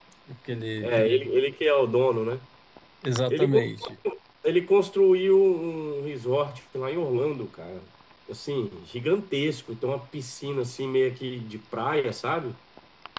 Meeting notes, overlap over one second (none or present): none